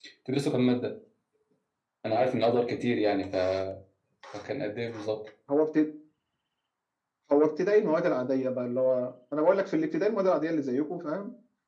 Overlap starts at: none

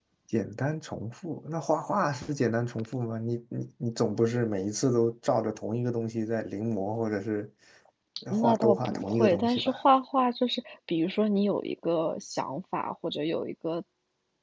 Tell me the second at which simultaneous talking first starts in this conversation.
8.3 s

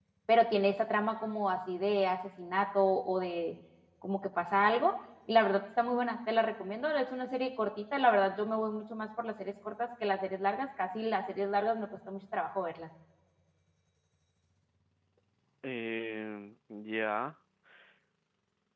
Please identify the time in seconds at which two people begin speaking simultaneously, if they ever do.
none

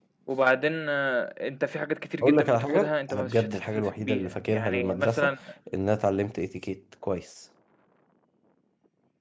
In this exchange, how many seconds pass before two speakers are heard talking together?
2.2 s

